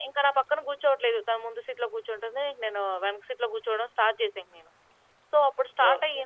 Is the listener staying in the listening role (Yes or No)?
Yes